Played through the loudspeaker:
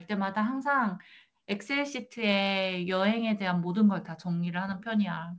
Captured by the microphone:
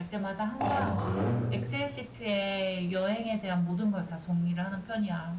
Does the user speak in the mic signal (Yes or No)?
Yes